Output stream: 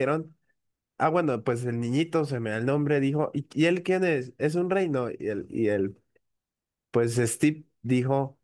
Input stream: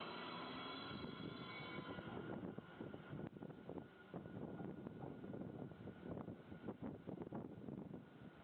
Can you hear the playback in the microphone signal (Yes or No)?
No